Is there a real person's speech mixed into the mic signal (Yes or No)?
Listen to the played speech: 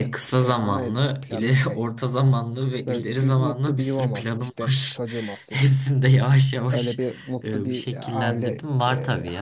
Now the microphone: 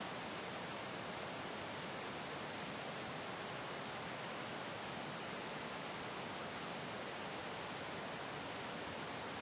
No